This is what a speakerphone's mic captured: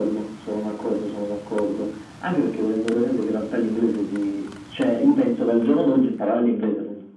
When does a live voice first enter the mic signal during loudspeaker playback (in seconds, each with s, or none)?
none